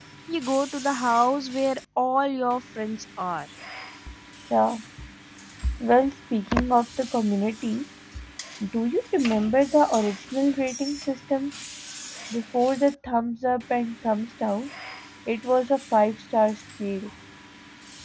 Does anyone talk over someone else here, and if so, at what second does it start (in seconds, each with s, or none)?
none